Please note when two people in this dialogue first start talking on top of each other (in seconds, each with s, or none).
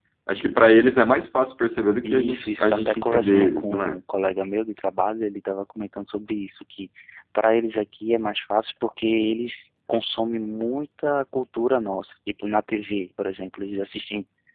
2.0 s